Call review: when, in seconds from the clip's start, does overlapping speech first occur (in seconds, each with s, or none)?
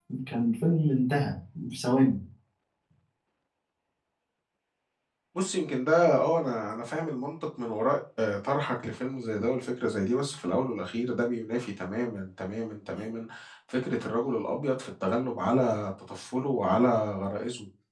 none